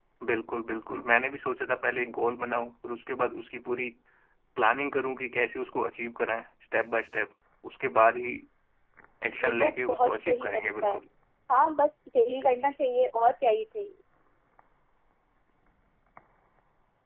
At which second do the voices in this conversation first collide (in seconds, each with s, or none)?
9.4 s